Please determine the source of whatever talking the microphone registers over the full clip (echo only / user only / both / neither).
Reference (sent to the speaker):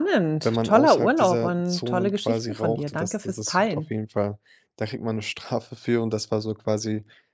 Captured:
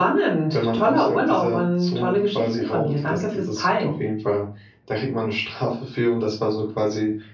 echo only